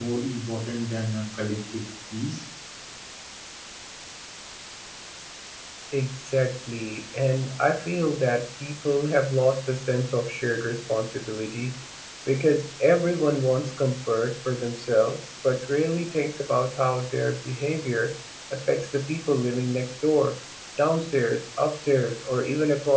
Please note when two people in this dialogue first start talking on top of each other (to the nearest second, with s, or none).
none